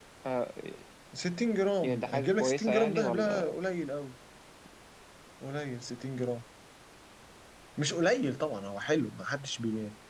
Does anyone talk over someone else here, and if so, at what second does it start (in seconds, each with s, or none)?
1.8 s